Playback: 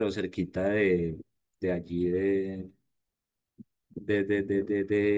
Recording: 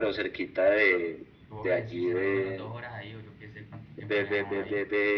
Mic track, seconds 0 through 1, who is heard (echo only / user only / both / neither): echo only